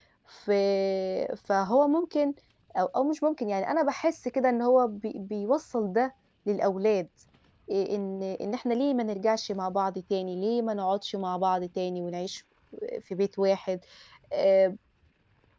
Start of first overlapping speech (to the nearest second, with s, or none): none